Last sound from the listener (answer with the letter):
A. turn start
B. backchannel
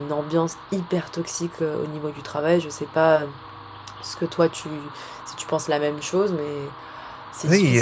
A